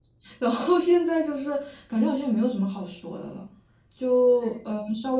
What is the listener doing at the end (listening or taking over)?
listening